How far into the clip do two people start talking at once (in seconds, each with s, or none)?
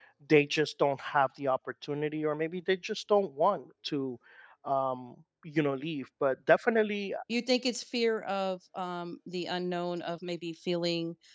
none